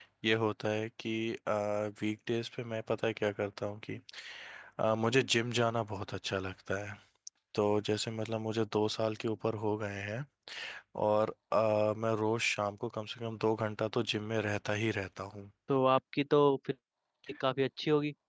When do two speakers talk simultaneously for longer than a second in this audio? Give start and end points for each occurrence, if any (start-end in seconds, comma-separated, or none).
none